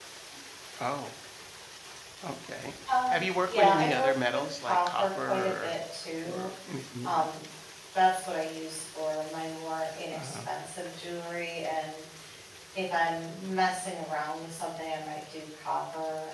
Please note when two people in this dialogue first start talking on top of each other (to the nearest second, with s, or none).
3 s